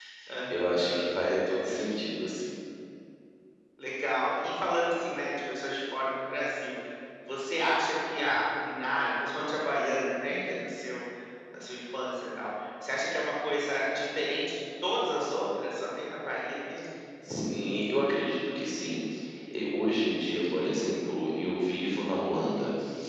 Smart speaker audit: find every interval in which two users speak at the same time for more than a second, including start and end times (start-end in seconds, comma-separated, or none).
0.5-1.8